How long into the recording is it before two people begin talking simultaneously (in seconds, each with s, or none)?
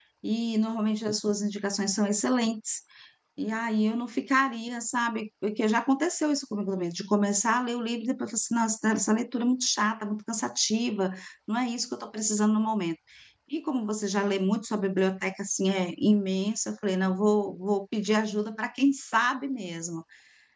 none